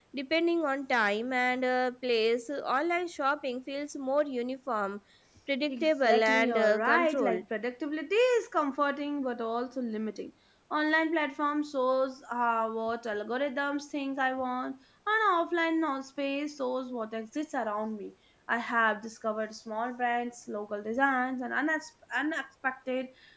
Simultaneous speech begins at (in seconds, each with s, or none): 5.7 s